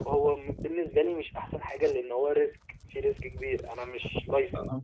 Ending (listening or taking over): taking over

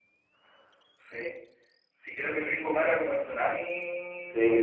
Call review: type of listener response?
listening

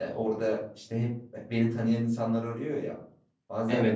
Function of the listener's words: listening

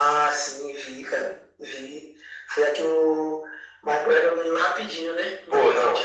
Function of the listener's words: taking over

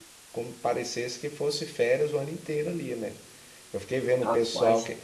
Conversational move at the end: listening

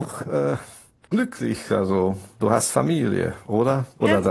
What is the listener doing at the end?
taking over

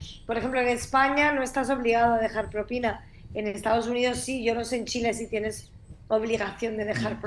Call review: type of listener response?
taking over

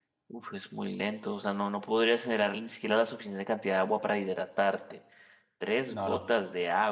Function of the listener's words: listening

